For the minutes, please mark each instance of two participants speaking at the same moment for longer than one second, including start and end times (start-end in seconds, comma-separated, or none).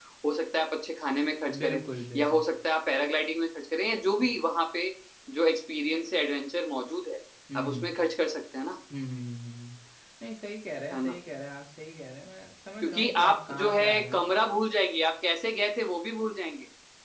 12.8-14.2